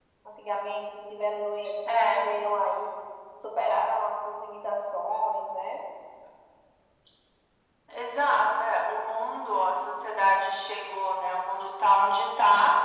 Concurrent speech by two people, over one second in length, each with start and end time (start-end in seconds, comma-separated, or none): none